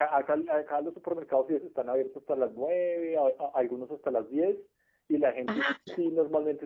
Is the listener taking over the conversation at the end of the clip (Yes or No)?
No